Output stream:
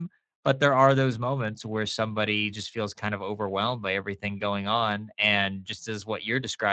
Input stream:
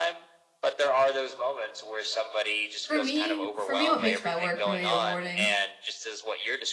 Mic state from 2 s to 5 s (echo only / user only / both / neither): both